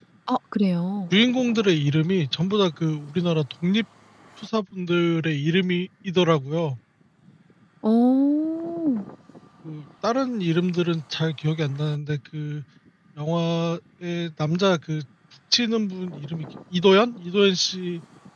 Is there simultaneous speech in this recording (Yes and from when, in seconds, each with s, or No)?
No